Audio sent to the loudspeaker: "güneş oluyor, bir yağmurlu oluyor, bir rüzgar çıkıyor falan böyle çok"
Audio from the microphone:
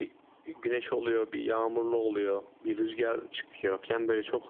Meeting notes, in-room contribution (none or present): none